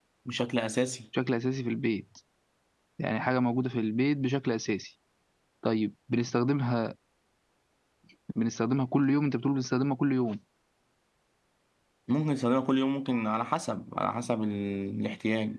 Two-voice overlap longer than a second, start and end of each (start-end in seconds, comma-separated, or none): none